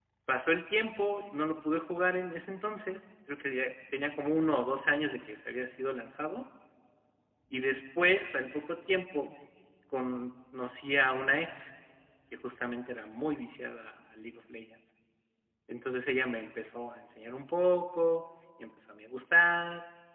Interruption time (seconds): none

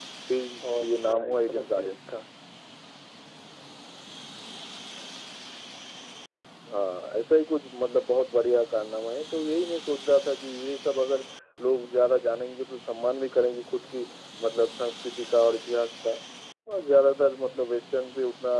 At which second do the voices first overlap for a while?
0.8 s

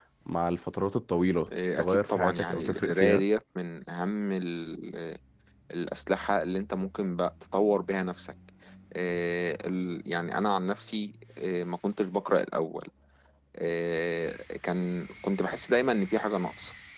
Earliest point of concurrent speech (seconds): 1.8 s

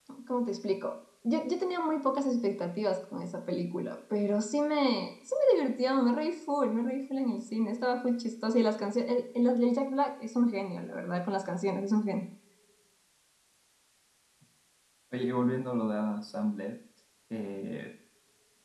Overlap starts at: none

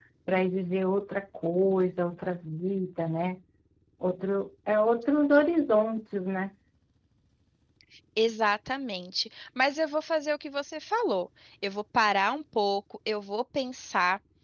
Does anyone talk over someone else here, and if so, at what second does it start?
none

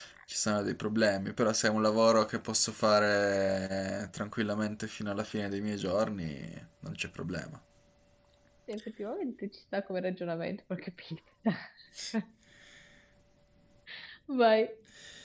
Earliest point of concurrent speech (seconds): none

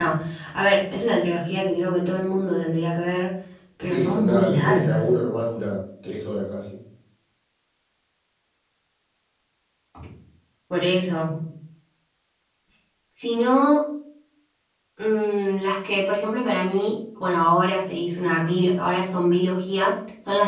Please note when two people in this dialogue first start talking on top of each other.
3.9 s

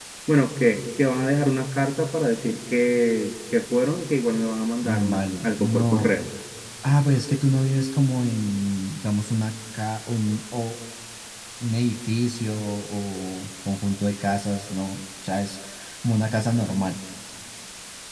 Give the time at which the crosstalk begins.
4.8 s

